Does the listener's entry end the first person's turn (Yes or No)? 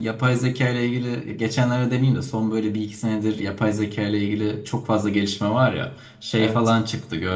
No